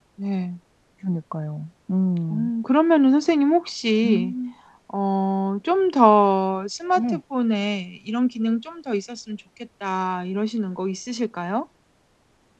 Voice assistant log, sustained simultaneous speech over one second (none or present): none